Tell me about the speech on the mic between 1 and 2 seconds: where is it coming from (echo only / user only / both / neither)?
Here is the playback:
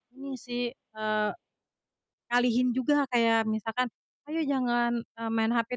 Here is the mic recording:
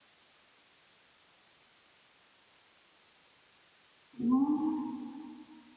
neither